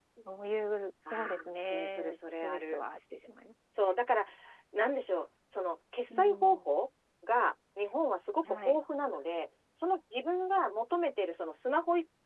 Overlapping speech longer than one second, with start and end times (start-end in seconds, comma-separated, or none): 1.1-2.8